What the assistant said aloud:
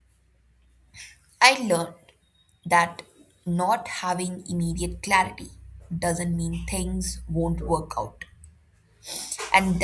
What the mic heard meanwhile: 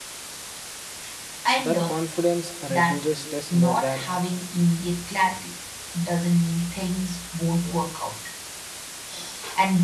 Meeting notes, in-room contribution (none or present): present